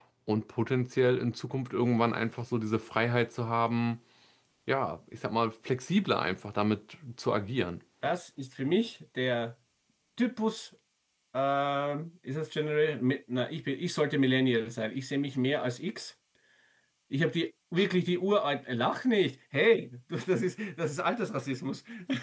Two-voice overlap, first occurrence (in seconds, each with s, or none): none